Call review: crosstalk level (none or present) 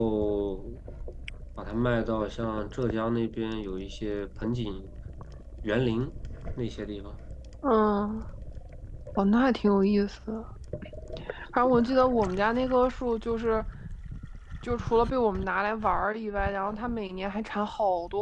none